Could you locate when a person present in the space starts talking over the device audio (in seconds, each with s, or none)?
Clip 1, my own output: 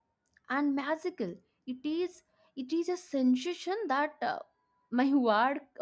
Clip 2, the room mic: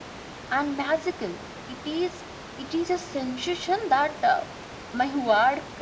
none